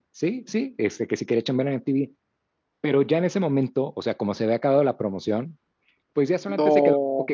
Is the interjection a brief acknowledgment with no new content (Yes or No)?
Yes